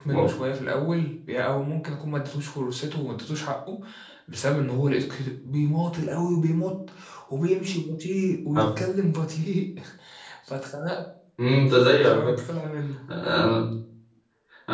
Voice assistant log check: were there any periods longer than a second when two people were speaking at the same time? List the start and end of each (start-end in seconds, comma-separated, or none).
none